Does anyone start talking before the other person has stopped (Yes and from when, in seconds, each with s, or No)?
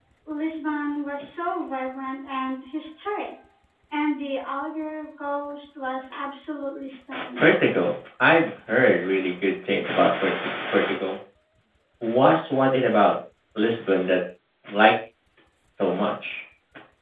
No